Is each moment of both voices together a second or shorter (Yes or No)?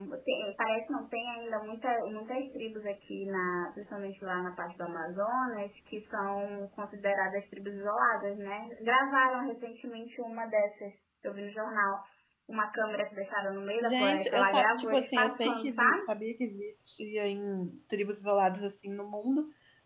No